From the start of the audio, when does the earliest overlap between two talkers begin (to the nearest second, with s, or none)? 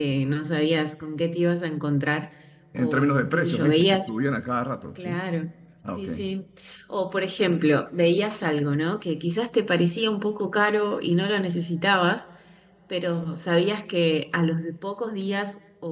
3 s